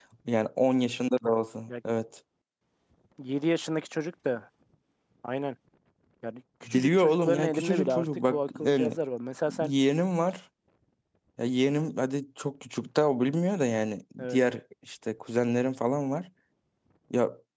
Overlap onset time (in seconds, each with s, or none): 6.7 s